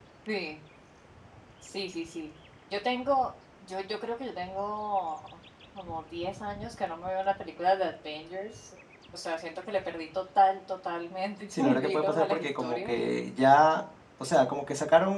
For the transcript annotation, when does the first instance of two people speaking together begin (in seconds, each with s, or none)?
11.5 s